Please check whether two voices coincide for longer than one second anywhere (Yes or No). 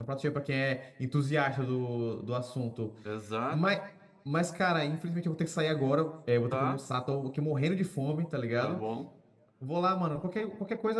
No